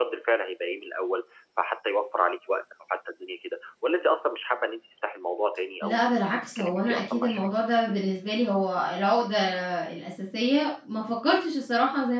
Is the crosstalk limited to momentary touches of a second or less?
No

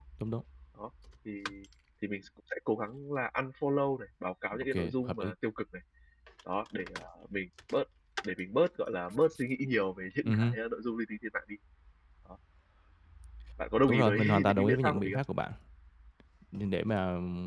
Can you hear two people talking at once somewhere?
Yes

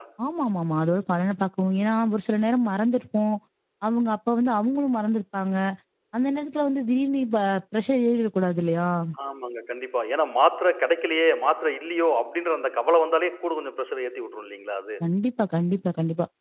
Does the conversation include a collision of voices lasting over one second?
No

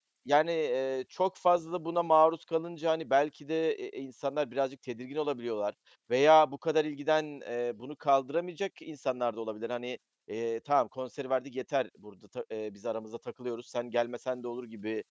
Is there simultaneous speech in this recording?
No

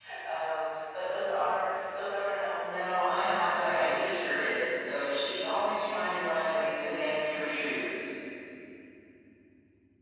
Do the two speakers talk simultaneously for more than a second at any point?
Yes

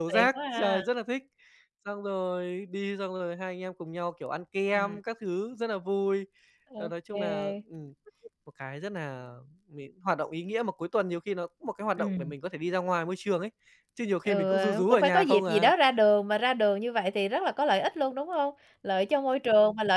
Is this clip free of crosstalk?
No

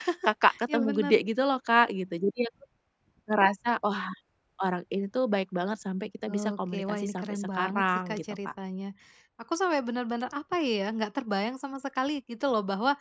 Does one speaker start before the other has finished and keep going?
Yes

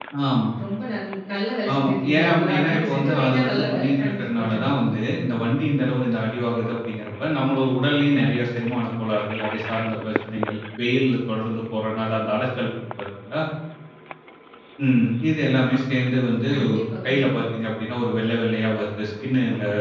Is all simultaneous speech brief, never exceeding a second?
No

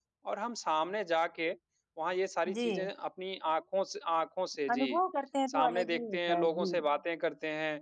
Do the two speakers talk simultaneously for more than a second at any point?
Yes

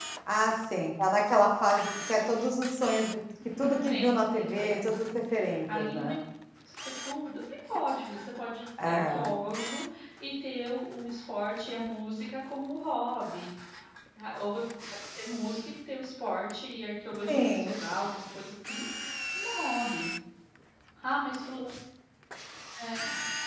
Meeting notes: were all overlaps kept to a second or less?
No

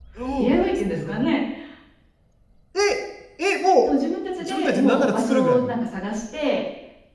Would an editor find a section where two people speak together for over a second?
Yes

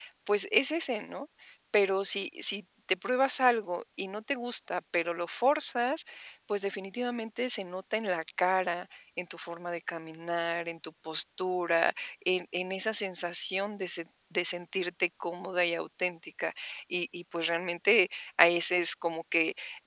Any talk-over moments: No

